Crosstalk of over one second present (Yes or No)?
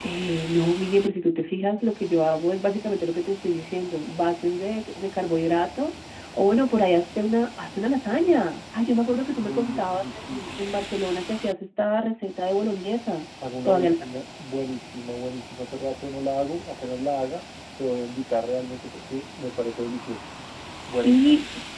Yes